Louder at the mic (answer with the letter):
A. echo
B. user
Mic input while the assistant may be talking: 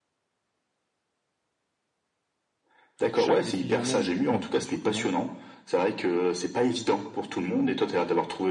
A